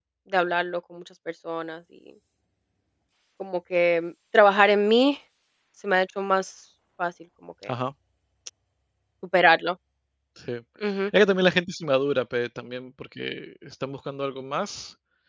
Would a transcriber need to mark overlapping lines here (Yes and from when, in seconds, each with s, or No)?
No